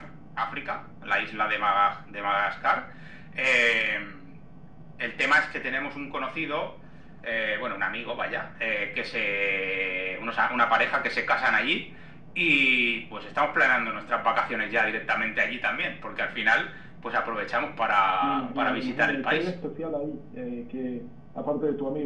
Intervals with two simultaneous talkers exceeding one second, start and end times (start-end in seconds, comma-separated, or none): 18.2-19.5